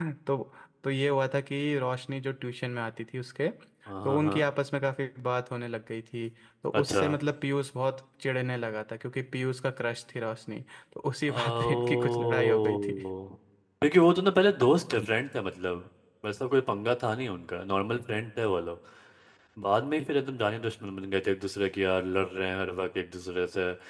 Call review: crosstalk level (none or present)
present